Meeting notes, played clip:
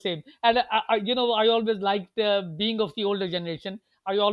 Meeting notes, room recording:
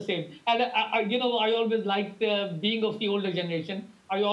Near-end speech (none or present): none